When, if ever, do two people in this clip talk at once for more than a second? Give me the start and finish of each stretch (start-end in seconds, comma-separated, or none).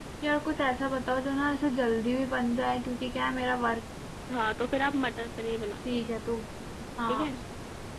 none